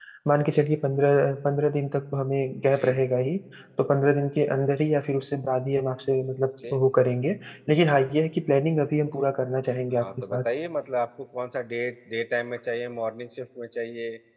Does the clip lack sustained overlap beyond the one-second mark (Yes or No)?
Yes